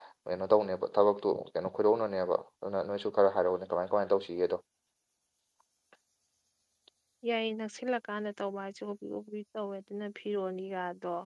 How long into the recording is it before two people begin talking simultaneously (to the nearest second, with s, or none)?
none